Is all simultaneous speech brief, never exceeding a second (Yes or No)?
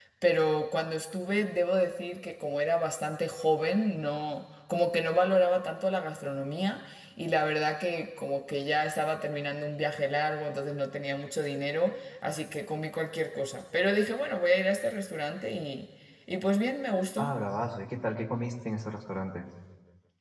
Yes